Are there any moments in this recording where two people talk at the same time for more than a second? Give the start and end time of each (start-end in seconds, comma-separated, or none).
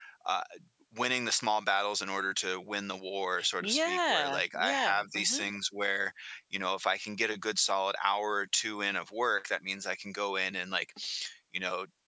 3.6-5.4